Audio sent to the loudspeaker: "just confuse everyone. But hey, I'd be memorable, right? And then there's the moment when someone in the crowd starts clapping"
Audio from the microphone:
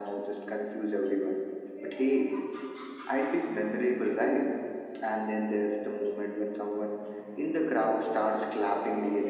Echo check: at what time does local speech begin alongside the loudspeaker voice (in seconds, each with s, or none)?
none